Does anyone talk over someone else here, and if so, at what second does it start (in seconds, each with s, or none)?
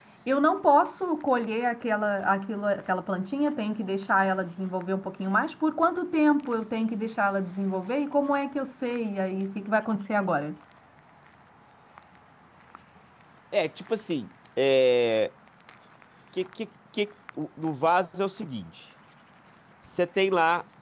none